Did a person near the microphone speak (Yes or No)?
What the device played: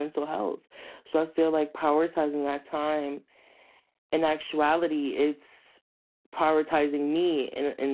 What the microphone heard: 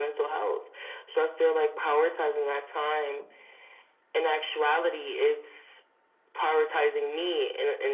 No